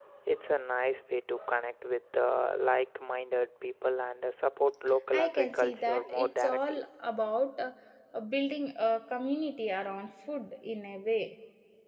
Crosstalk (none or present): present